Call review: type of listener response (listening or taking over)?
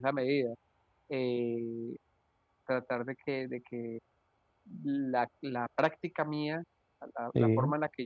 listening